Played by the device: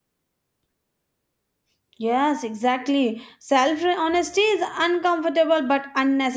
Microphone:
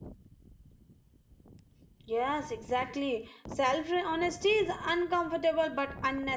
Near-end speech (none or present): none